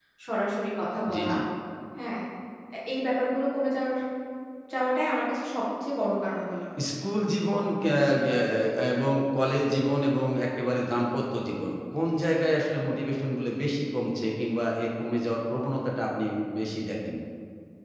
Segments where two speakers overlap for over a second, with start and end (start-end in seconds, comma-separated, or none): none